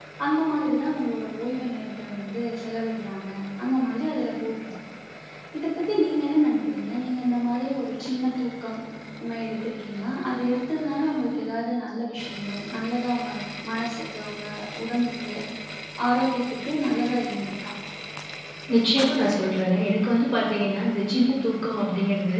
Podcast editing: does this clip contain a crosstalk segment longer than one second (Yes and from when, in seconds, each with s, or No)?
No